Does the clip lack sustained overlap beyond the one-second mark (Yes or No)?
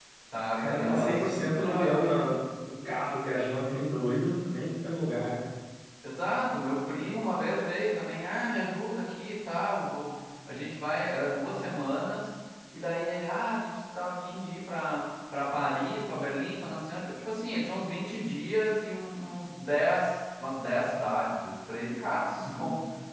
No